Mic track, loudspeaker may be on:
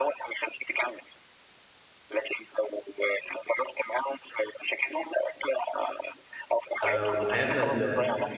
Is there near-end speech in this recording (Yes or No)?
Yes